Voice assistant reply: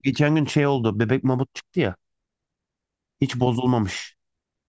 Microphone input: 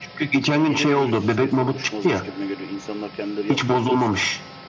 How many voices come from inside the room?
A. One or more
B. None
A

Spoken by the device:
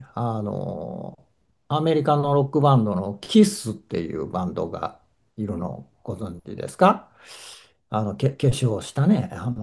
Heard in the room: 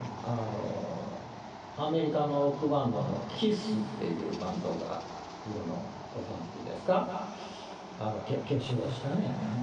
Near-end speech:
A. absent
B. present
A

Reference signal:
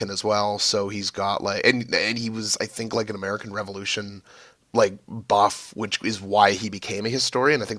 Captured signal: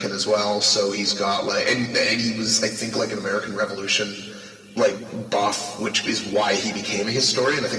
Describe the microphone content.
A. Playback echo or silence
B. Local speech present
A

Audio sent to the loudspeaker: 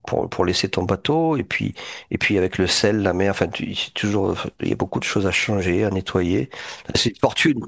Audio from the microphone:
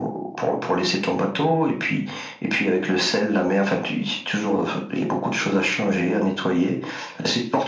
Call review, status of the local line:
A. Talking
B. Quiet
B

